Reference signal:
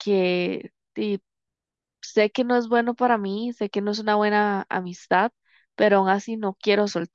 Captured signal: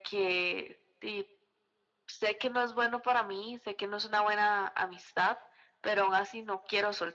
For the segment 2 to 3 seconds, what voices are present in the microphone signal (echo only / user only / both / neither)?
echo only